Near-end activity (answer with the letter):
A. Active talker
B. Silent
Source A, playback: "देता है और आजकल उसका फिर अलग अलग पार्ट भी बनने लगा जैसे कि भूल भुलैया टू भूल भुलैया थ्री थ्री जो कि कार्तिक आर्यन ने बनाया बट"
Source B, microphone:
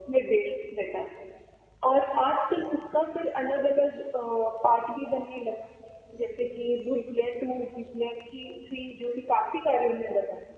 B